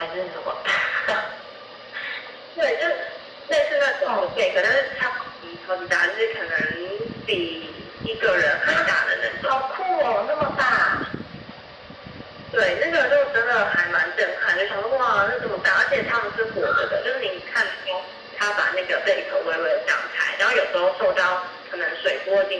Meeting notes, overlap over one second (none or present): none